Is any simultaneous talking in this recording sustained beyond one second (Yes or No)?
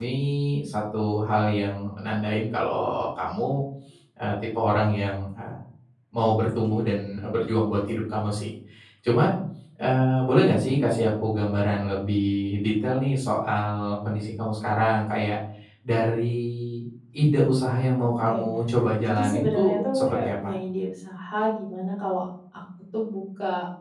Yes